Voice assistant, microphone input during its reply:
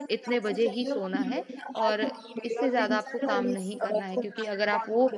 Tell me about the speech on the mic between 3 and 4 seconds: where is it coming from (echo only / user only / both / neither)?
both